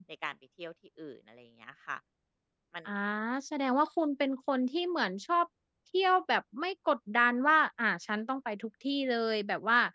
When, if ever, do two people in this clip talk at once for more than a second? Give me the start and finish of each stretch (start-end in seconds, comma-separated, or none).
none